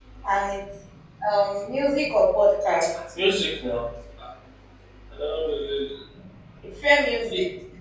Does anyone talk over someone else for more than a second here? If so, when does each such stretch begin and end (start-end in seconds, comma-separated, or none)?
none